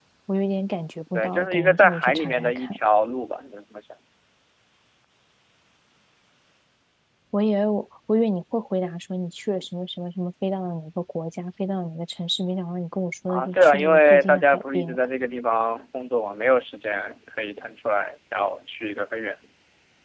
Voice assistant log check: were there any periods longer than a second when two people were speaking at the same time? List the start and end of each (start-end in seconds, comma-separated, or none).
1.1-2.8, 13.3-15.0